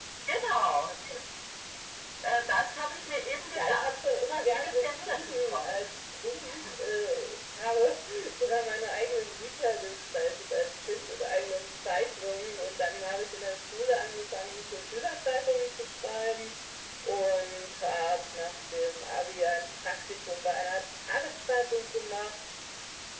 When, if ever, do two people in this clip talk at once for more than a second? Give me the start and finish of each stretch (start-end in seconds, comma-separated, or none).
4.5-5.9